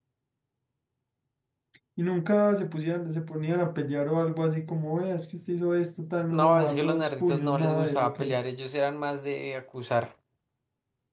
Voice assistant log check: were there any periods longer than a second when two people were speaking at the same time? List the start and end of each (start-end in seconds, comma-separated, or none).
6.3-8.4